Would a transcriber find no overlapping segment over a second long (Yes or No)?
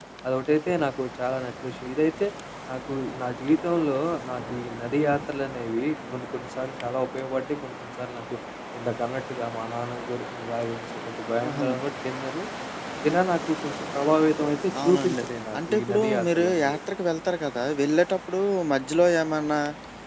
No